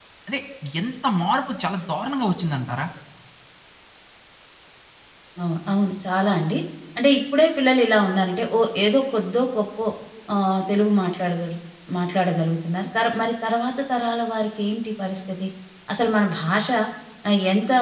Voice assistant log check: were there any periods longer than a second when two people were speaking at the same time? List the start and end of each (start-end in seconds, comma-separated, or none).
none